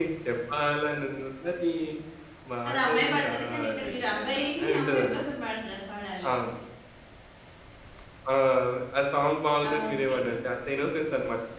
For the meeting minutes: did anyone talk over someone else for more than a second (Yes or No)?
Yes